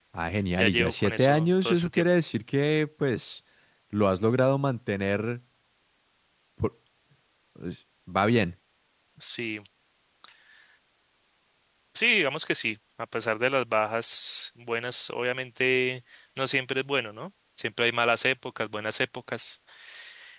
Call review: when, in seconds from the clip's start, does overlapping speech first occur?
0.6 s

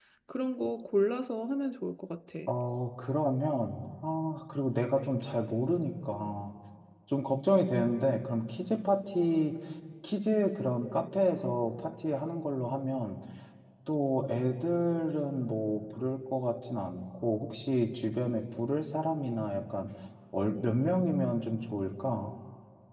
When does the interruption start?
none

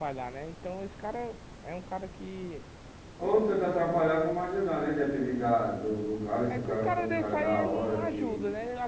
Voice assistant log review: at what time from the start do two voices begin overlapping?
6.5 s

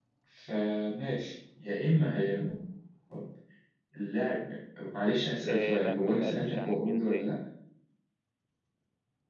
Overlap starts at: 5.5 s

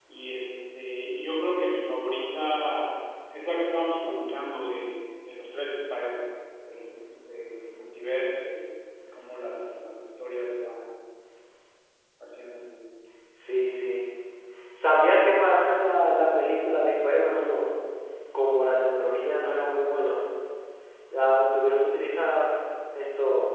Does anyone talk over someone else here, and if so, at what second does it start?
none

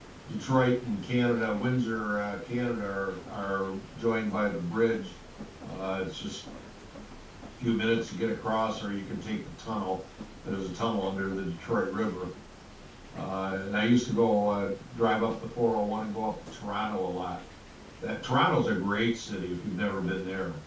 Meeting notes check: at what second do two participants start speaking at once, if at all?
none

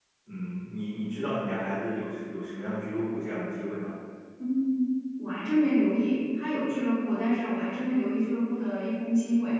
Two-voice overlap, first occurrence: none

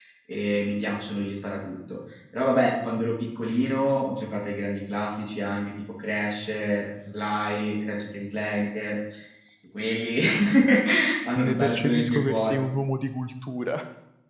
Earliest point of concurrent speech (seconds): 11.4 s

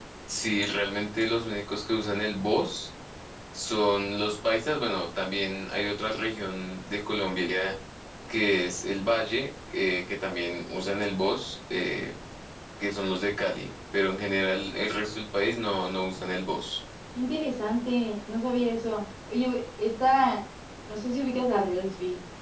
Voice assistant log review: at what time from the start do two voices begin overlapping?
none

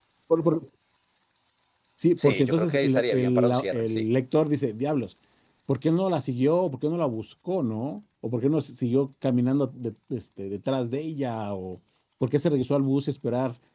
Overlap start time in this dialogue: 2.2 s

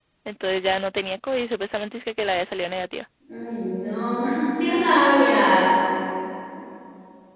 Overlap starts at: none

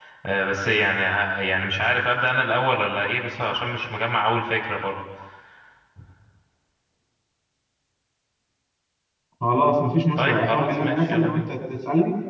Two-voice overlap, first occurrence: 10.2 s

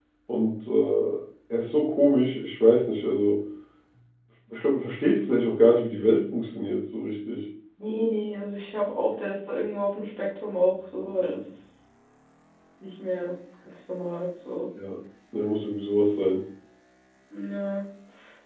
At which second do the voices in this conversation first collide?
none

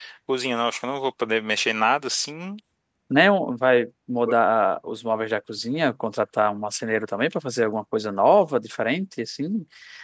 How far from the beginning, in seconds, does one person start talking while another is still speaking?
none

